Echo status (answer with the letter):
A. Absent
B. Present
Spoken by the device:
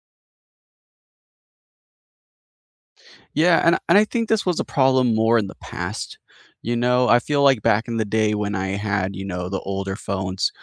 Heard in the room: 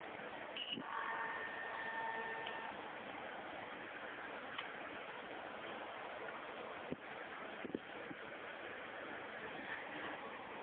A